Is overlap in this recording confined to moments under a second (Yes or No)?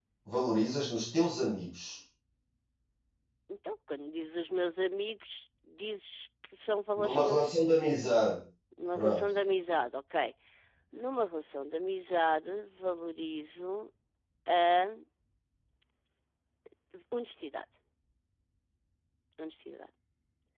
Yes